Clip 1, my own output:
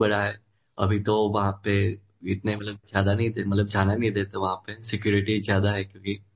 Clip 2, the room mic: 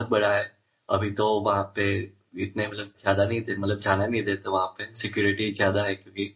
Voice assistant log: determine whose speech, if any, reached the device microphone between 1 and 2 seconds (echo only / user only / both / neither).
echo only